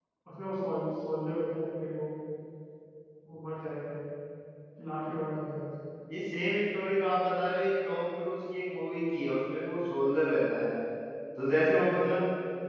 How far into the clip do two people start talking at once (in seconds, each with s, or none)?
none